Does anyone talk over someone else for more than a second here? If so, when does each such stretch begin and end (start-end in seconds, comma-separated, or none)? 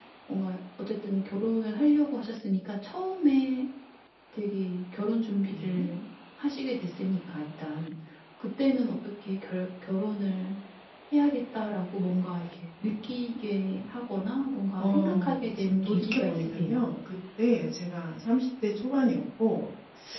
14.8-16.8